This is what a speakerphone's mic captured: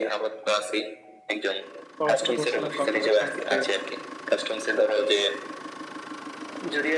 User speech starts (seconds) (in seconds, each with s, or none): 2.0 s